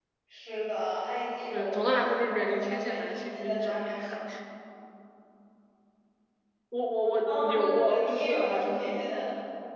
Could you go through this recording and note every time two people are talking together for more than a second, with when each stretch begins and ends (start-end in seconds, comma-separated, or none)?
1.5-4.0, 7.3-9.0